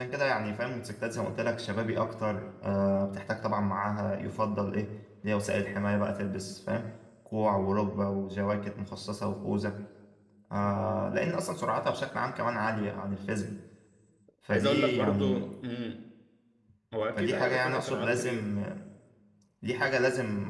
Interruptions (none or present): present